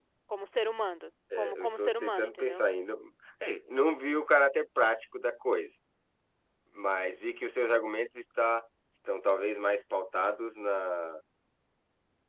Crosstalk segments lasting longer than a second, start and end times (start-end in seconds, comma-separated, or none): 1.4-2.7